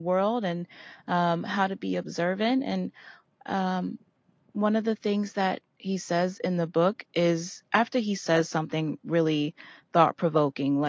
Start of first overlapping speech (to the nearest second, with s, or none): none